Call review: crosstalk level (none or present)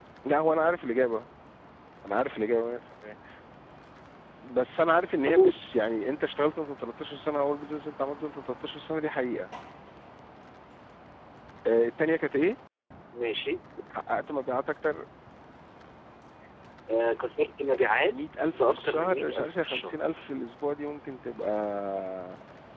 present